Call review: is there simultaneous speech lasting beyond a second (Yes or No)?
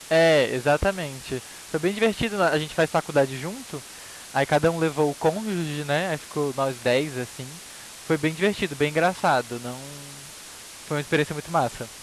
No